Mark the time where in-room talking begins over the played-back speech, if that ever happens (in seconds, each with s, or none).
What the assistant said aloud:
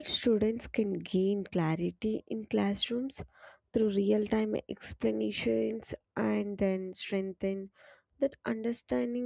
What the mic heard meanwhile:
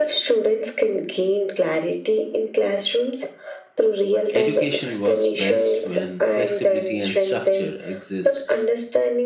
4.3 s